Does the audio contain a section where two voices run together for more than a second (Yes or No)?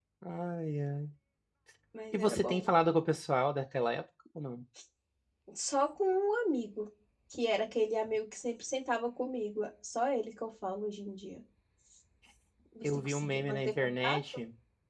Yes